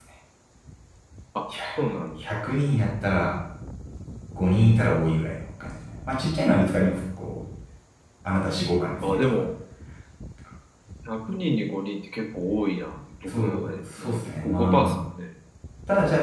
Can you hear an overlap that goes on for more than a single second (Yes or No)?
Yes